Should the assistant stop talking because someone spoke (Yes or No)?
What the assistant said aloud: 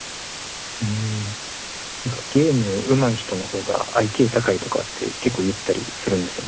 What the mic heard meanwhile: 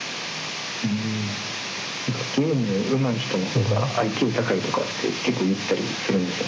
Yes